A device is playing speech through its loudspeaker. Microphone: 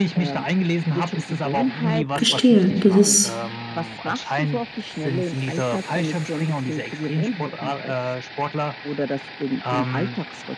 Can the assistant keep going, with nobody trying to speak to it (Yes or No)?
No